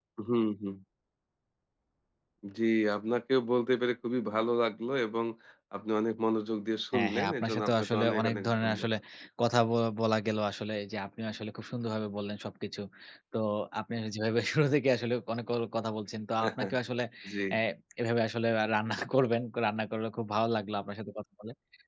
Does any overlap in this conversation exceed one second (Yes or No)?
Yes